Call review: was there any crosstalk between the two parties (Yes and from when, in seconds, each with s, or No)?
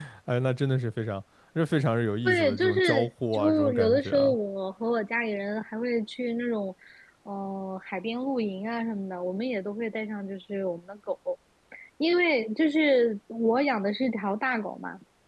Yes, from 2.2 s